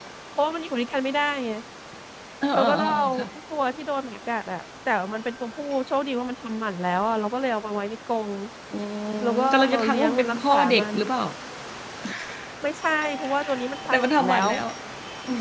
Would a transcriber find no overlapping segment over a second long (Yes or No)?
No